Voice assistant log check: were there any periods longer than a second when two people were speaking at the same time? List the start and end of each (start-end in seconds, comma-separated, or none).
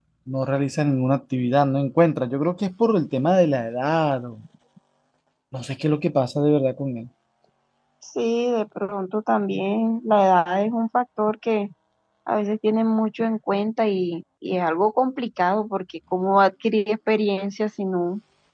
none